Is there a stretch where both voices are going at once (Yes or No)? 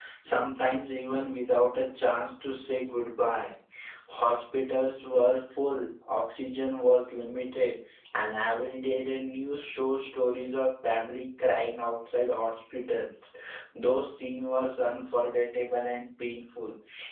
No